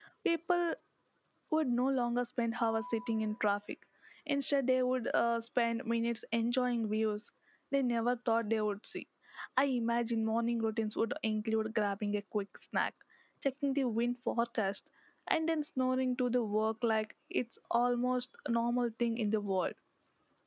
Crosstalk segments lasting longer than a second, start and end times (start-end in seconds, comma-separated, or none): none